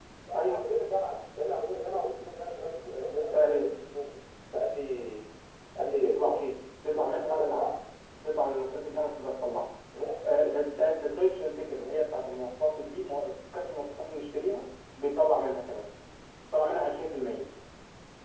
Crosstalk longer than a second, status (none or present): none